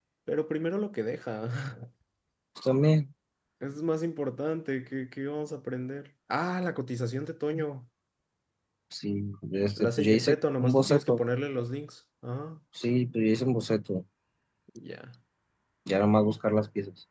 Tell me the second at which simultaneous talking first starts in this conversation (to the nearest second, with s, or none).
10 s